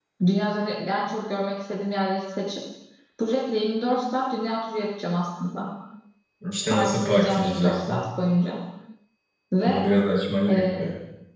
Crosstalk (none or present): present